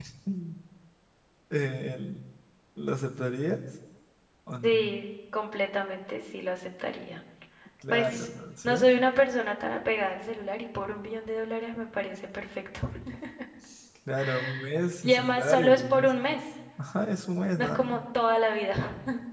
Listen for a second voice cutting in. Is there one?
Yes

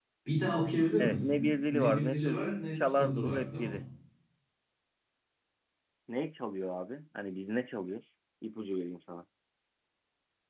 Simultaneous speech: Yes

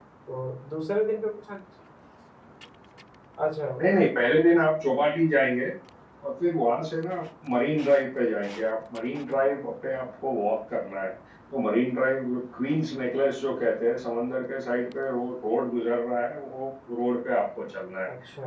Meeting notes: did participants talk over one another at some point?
No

